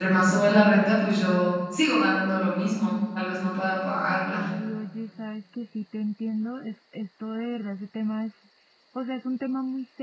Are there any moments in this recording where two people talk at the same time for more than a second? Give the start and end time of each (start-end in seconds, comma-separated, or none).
none